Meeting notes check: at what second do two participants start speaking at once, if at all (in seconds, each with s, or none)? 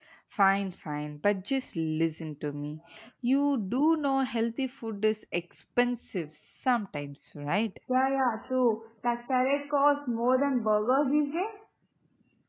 none